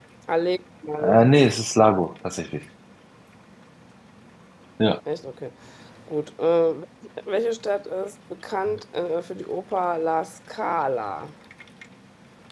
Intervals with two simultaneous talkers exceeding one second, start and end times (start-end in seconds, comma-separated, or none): none